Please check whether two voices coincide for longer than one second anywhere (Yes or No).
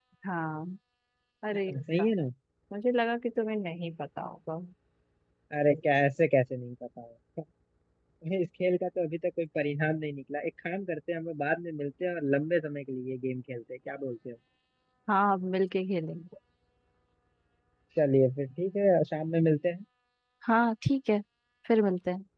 No